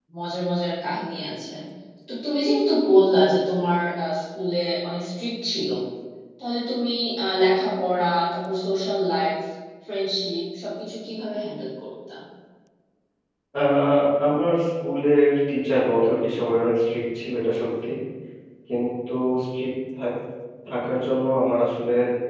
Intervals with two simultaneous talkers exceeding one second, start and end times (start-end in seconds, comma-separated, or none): none